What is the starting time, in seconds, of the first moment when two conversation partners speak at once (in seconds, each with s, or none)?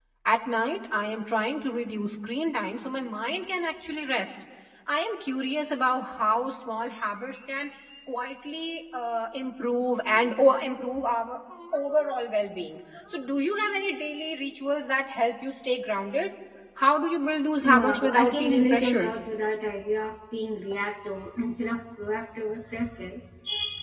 17.6 s